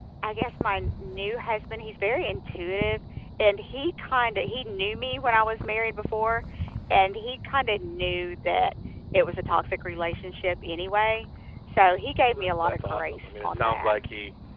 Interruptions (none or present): present